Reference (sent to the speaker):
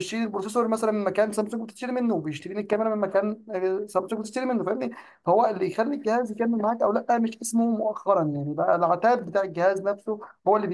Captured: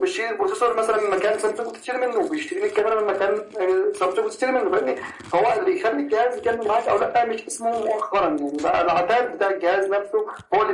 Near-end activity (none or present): none